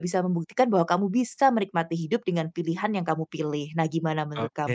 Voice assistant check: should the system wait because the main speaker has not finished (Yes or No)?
No